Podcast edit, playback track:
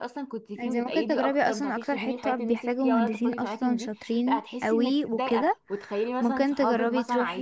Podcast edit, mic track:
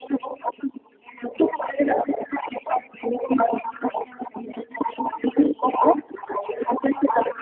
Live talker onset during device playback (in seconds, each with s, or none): none